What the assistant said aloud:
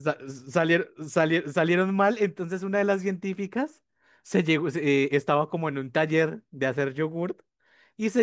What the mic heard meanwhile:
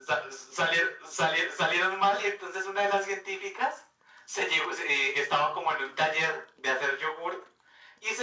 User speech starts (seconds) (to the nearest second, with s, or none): none